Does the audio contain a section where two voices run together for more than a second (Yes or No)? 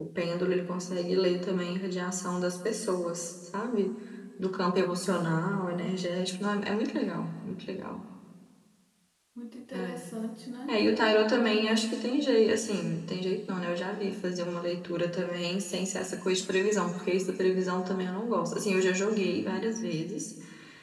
No